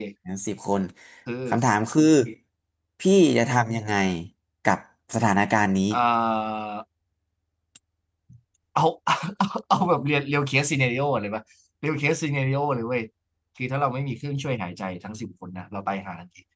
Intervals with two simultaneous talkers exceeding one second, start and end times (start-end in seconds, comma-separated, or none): none